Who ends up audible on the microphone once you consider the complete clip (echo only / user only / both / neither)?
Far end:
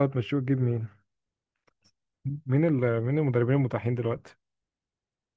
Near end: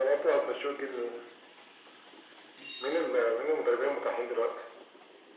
echo only